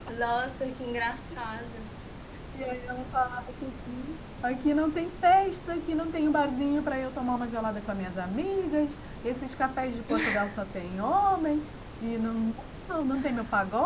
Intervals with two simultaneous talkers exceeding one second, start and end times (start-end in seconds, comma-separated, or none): none